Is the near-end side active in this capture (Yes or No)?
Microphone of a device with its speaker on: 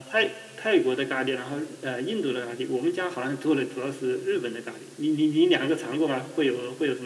No